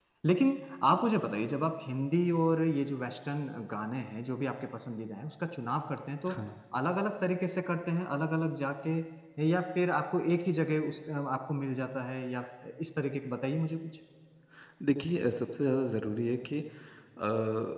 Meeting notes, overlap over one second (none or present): none